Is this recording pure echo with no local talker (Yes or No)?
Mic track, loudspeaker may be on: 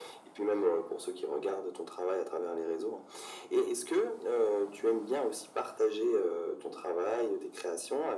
Yes